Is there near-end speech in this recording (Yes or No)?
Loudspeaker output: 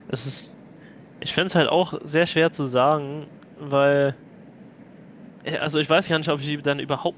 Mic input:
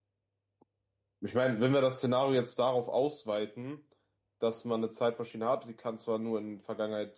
Yes